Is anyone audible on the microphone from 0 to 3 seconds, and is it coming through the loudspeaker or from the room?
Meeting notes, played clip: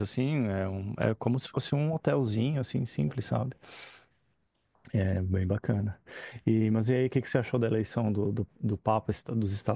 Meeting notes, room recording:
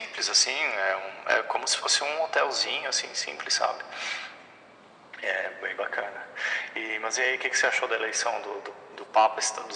echo only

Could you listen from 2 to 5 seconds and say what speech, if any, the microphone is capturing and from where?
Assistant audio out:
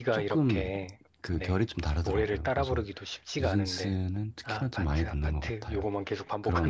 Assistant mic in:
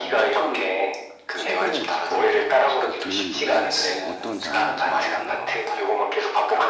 both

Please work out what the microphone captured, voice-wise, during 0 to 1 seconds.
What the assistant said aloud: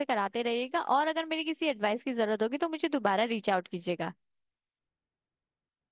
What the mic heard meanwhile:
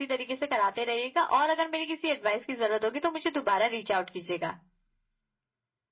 echo only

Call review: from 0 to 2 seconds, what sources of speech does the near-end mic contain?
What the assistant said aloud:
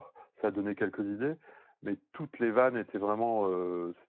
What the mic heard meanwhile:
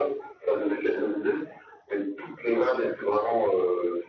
echo only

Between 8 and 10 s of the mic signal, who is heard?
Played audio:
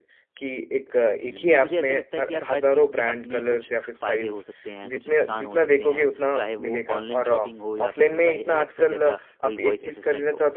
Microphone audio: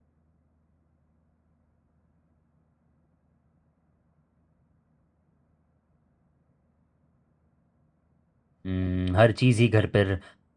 user only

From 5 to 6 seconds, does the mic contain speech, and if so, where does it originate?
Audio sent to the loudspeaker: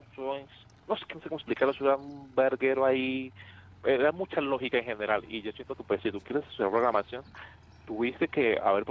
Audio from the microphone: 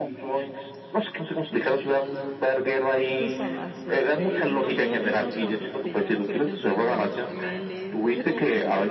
both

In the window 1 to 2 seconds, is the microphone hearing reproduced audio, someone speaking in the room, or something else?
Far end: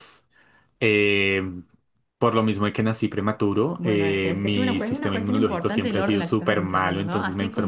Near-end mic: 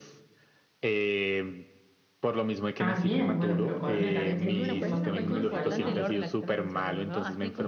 echo only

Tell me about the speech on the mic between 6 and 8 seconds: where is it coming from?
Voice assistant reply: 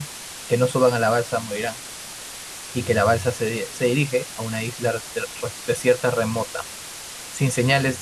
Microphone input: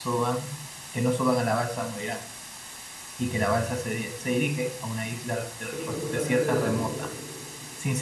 both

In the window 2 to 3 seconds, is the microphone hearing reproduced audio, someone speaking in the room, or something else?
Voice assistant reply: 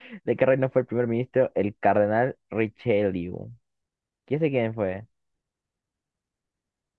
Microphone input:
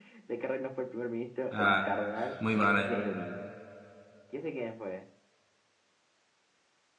both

